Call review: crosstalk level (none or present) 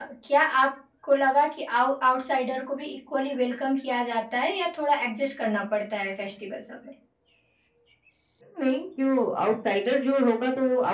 none